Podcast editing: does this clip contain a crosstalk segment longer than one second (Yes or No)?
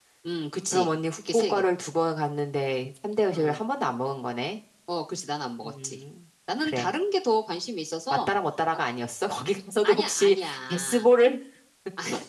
Yes